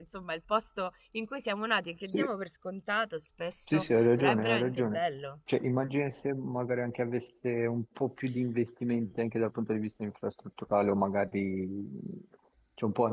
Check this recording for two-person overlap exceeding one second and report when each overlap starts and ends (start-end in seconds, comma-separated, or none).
3.7-5.0